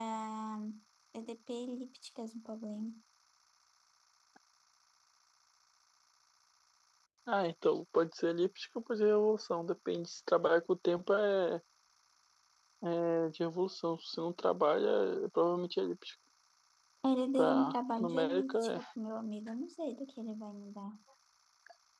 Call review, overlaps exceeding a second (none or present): present